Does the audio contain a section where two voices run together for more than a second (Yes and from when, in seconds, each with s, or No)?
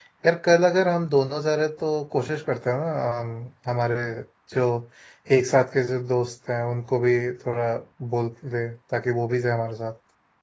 No